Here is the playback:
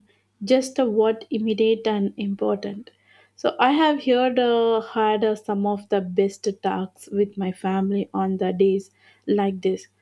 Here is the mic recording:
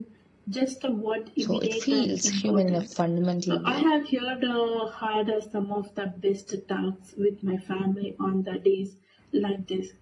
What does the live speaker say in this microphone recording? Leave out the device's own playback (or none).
So, it feels human in a fundamental way.